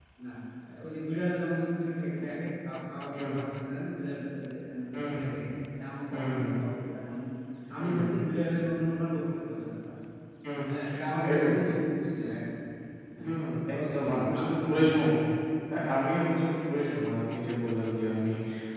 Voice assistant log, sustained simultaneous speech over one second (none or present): present